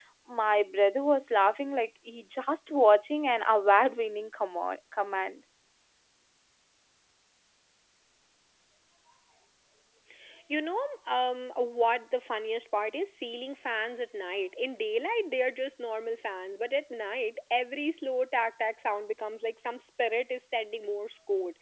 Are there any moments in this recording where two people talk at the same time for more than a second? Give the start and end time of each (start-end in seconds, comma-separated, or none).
none